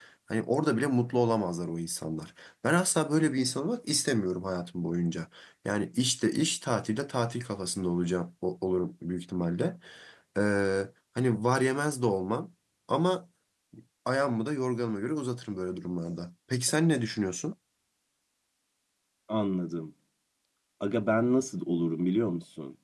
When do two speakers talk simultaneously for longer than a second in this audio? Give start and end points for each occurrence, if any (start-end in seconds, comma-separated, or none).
none